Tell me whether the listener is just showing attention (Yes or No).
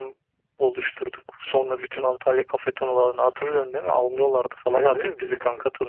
No